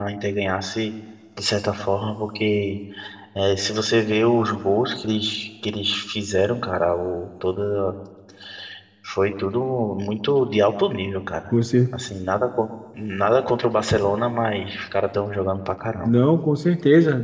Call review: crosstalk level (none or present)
none